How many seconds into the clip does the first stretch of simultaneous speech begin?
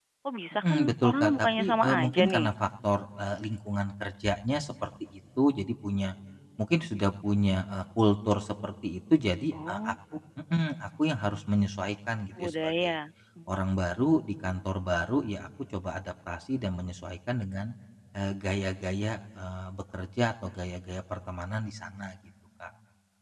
1 s

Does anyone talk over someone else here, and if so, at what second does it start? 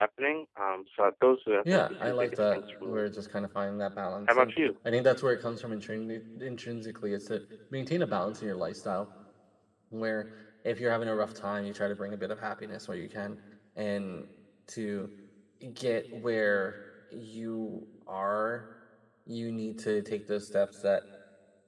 2 s

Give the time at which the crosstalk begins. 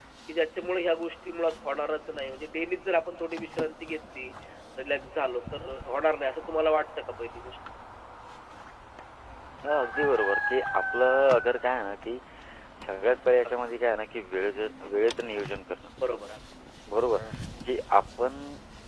none

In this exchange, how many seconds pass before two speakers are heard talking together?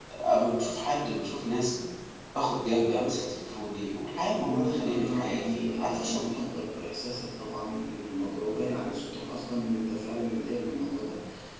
4 s

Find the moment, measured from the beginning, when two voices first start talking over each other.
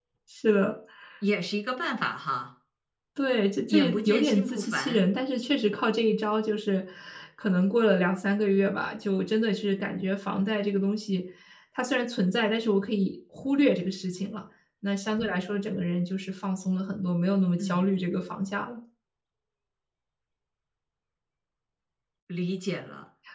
4 s

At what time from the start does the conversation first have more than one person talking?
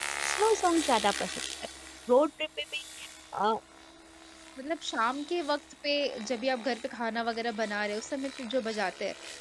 none

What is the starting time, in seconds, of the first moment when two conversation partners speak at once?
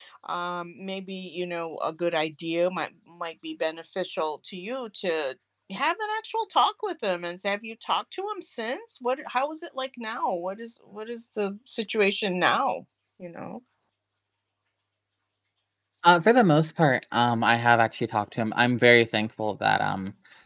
none

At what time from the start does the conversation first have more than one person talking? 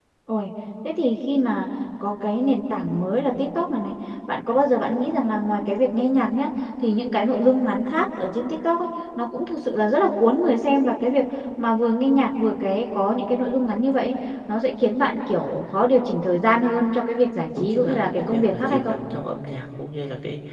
18 s

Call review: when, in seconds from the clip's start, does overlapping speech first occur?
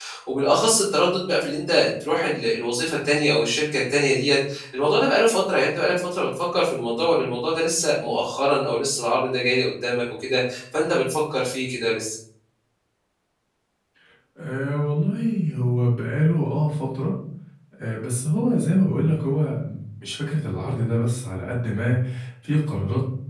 none

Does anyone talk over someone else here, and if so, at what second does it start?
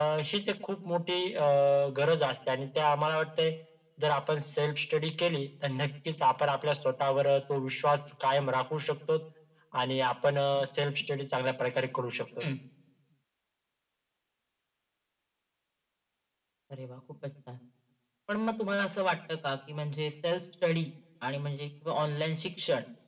none

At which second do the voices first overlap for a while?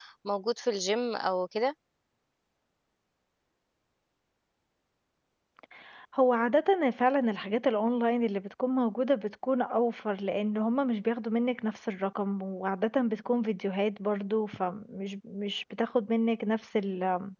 none

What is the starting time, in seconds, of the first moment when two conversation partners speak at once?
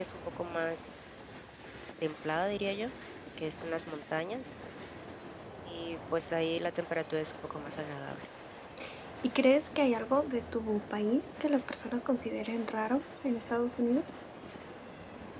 none

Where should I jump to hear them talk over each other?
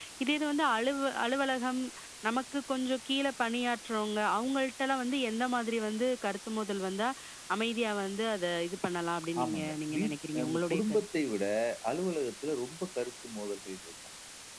9 s

